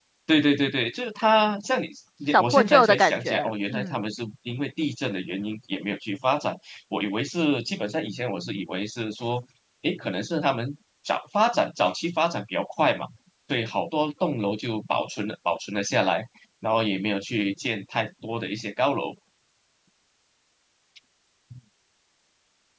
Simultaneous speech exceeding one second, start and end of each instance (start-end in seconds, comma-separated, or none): 2.3-3.9